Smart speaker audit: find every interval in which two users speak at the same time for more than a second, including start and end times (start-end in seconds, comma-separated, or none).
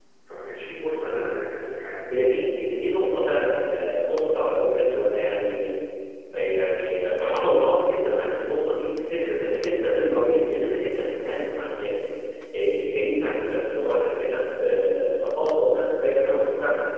none